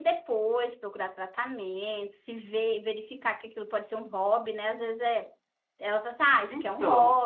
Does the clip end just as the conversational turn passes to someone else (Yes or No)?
No